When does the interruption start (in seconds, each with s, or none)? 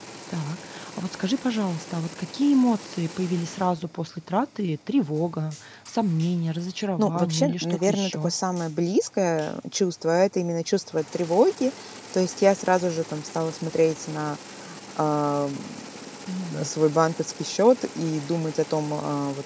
7.0 s